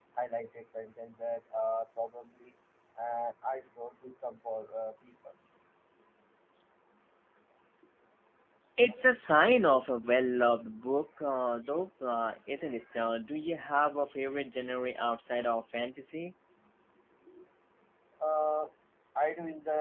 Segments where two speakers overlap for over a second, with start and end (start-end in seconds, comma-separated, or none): none